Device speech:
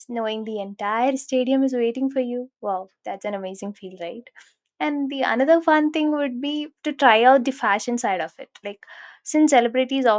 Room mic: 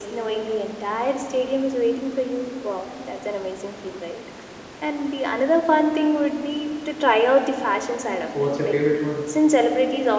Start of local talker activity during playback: 8.3 s

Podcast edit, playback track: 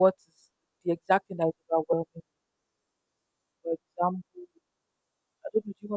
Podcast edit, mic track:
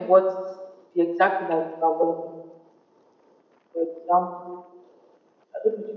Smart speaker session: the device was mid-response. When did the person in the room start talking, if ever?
none

